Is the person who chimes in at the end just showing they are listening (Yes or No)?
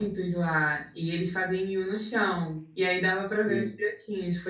Yes